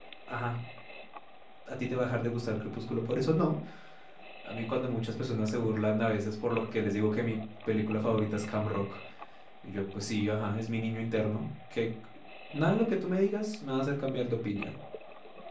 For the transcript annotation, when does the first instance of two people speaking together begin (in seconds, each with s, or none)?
none